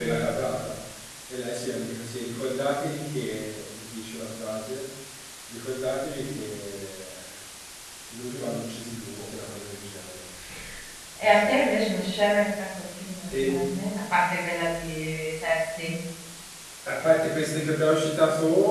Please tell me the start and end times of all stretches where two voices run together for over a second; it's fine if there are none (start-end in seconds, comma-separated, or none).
none